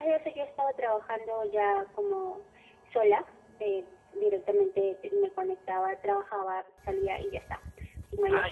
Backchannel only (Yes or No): No